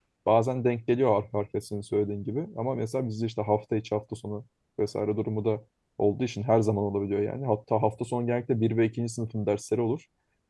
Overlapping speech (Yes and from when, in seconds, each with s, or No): No